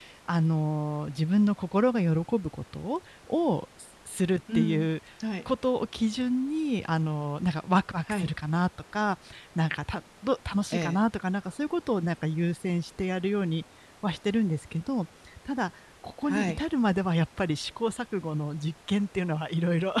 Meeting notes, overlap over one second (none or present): none